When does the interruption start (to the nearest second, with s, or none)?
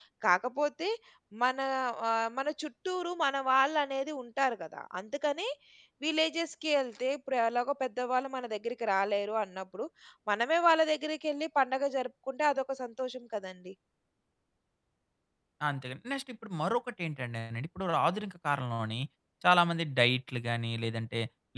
none